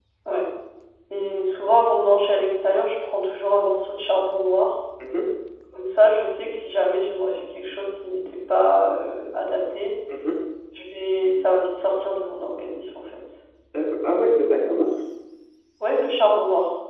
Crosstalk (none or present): none